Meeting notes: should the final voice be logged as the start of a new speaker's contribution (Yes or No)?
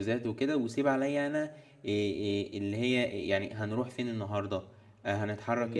No